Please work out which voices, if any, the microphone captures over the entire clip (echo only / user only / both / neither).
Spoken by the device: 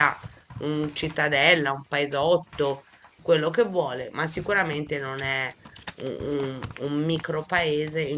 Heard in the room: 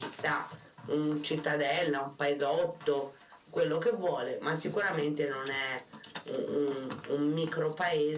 echo only